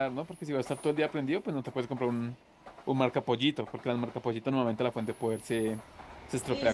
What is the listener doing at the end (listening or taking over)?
taking over